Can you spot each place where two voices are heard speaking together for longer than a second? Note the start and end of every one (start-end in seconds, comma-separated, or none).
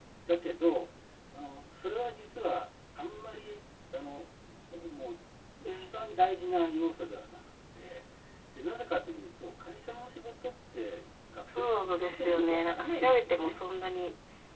11.4-13.6